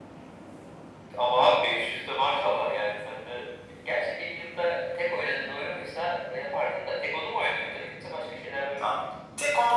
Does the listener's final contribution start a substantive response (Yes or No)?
Yes